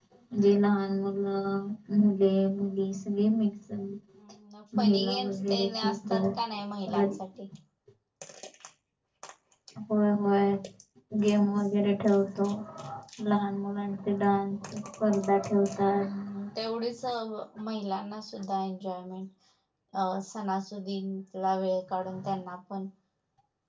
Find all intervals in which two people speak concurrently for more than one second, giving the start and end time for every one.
4.8-6.2

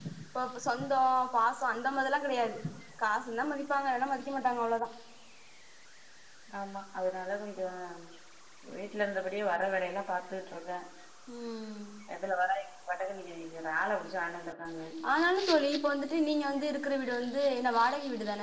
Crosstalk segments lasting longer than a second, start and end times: none

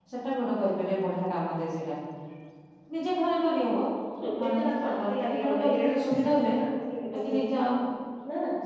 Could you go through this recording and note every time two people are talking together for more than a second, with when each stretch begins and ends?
4.4-6.5

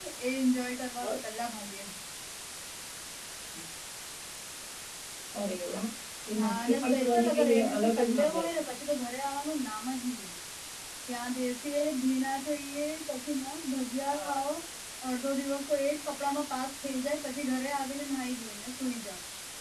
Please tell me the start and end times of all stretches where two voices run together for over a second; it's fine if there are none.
6.4-8.6

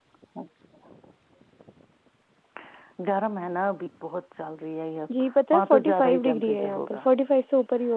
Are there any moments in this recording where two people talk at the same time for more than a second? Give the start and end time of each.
5.5-7.0

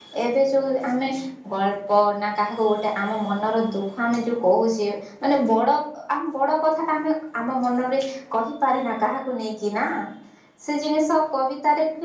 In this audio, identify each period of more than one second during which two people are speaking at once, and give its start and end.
none

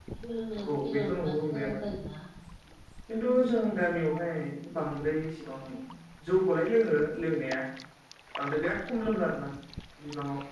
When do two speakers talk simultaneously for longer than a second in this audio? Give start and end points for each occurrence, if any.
0.6-1.8

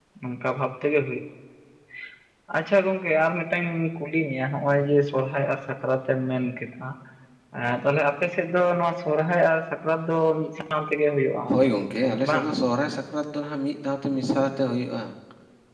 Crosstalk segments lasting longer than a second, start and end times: none

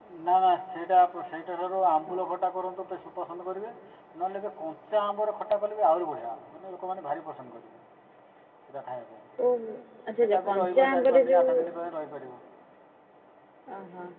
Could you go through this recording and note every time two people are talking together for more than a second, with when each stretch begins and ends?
10.2-11.5

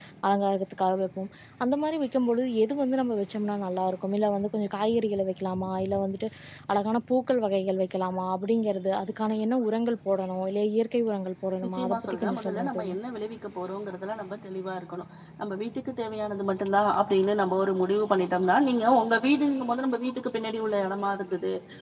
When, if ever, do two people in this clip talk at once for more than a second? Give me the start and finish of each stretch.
11.6-12.9

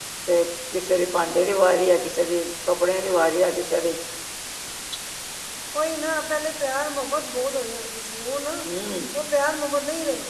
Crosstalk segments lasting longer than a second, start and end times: none

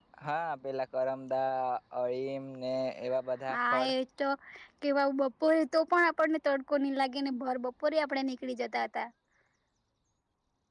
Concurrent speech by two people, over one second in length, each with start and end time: none

